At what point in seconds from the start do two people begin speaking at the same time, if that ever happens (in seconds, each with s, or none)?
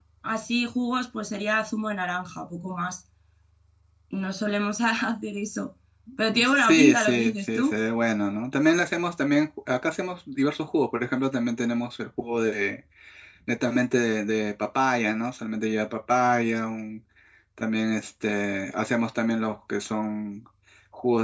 6.4 s